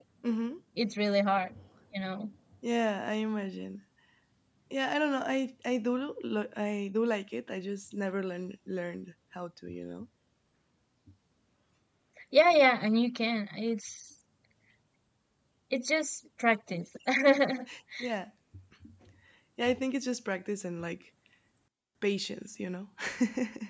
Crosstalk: none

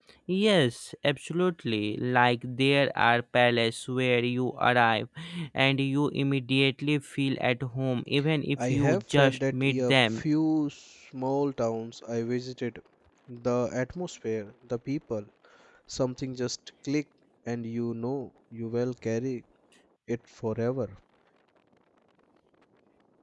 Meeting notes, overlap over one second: present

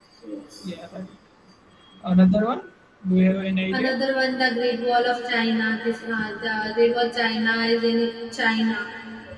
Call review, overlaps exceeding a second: none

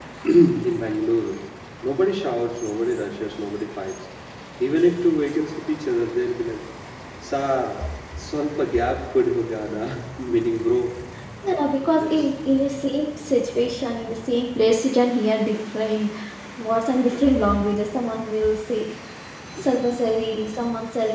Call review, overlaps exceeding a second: none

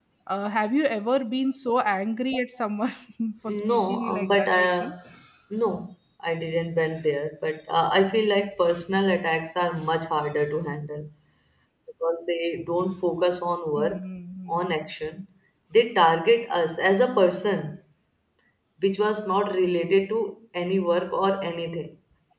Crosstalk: present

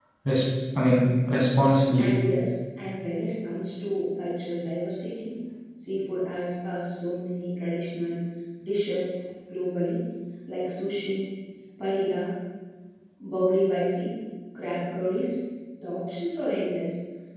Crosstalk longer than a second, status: none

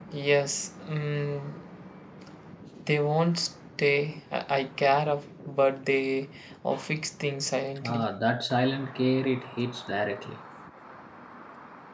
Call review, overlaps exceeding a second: none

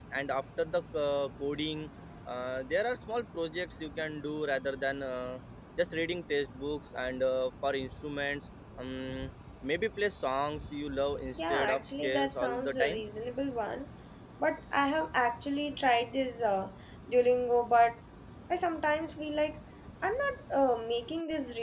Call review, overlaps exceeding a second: present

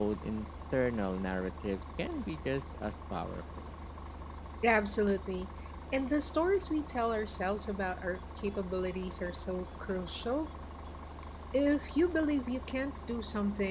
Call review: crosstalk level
none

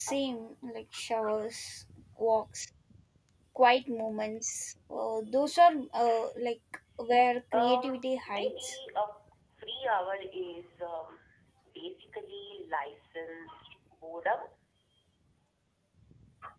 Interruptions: present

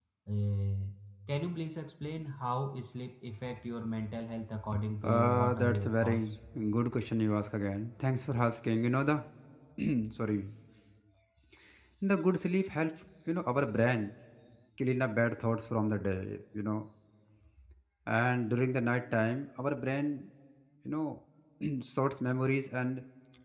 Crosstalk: present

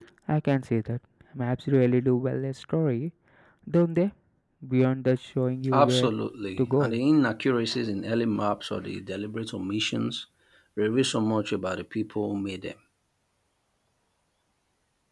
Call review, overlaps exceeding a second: none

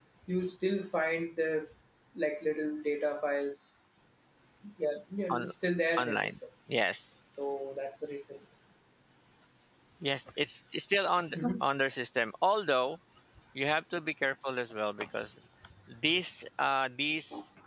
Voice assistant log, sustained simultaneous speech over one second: none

